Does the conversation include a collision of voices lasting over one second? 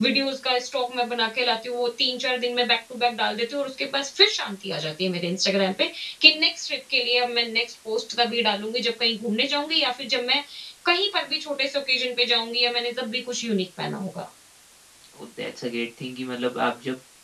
No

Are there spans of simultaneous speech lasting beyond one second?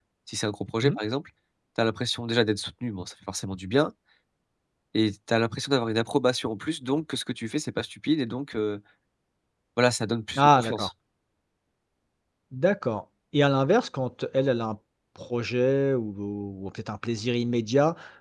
No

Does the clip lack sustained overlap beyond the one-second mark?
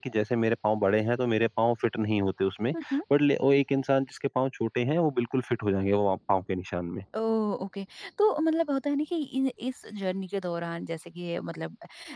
Yes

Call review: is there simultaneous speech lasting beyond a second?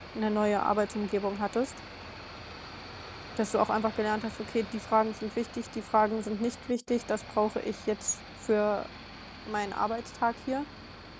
No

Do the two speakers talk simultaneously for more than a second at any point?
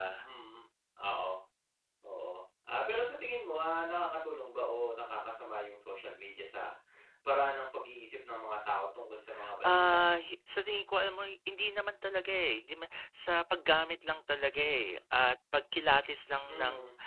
No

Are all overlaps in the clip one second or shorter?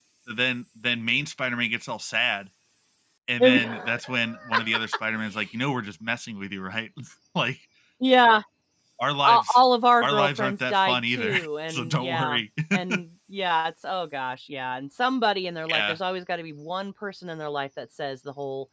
No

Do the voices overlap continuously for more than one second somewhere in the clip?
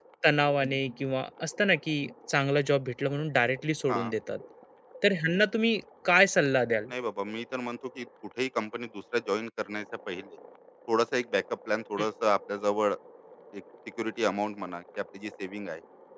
No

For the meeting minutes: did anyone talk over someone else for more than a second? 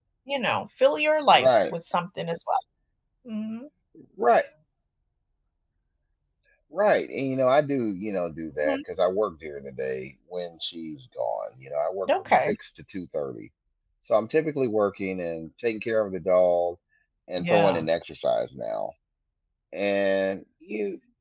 No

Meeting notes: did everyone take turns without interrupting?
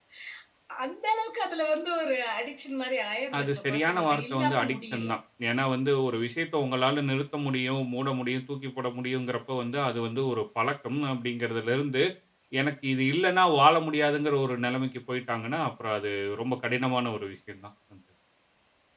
No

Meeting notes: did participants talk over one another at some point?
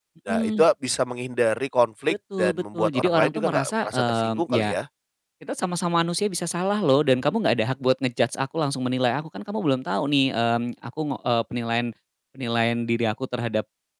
Yes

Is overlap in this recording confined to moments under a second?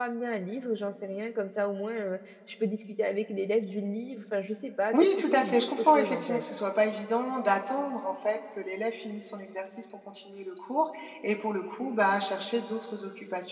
No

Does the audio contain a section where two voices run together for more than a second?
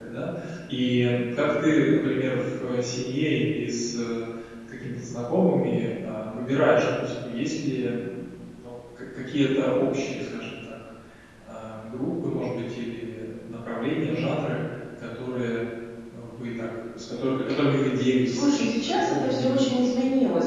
Yes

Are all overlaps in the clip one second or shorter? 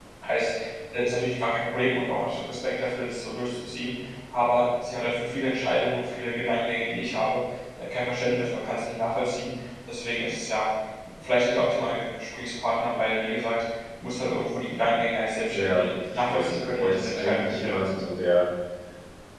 No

